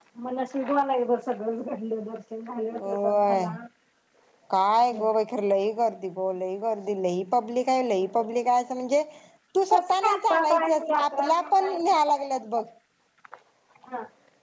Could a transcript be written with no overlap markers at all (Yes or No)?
No